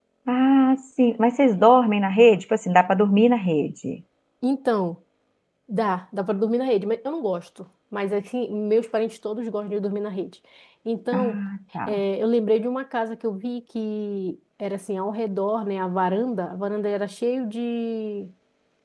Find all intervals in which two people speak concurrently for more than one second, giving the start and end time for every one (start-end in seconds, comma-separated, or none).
none